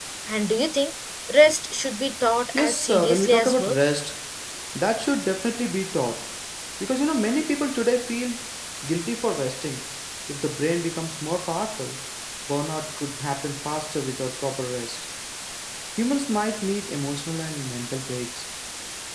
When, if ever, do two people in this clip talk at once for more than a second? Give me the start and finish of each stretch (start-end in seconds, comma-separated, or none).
2.5-3.8